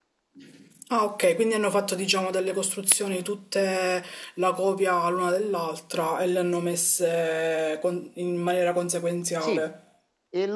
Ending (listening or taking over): taking over